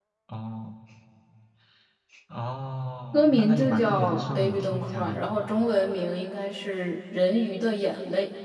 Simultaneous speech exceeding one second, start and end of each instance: 3.1-5.2

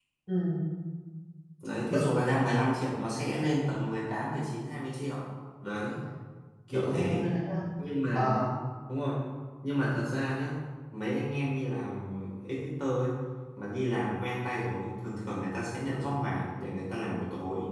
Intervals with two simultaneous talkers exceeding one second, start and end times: none

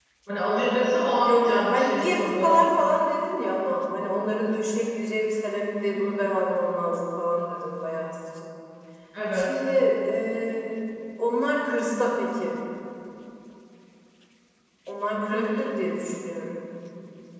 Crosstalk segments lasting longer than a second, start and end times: 1.2-2.6

